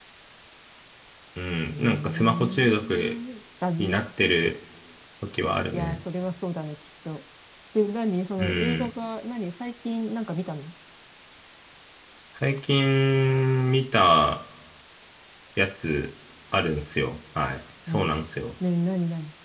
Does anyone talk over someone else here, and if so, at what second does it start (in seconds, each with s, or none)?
1.7 s